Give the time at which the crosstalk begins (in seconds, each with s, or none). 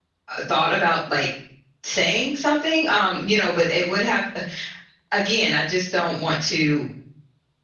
none